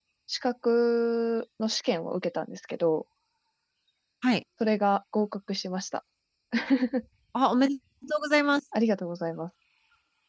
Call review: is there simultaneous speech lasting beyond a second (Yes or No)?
No